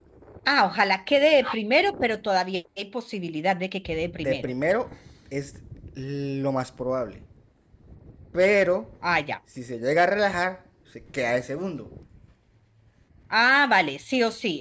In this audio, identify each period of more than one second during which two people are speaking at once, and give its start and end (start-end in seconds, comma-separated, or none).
none